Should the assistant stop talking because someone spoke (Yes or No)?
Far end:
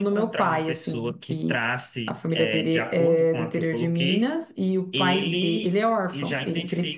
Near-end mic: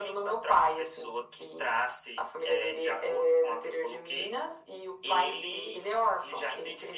No